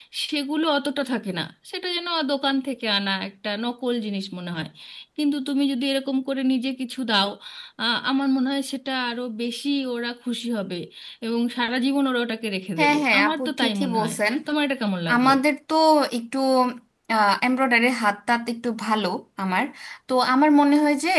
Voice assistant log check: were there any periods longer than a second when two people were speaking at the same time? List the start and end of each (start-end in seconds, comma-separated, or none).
12.8-14.2